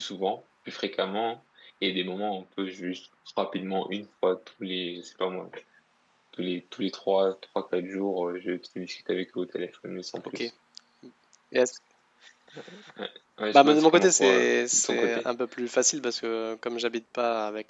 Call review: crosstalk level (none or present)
present